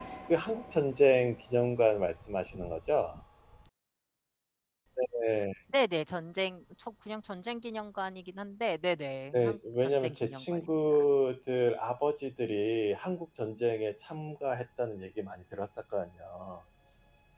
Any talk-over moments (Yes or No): Yes